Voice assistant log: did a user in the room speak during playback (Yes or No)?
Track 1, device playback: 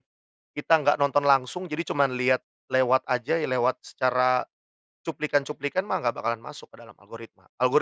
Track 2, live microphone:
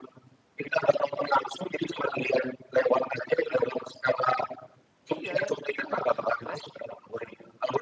Yes